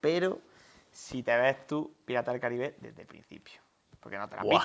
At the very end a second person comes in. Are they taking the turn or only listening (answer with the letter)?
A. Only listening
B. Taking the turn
B